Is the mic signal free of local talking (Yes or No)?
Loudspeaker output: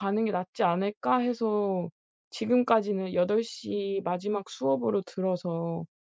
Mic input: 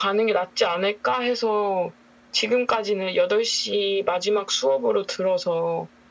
Yes